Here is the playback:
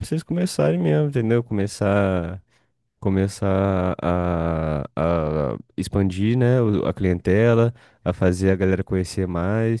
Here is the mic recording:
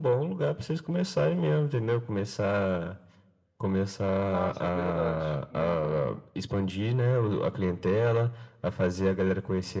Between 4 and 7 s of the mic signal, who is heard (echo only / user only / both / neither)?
both